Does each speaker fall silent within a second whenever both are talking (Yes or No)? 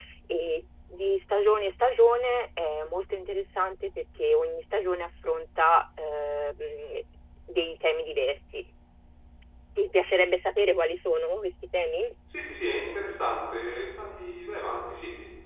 Yes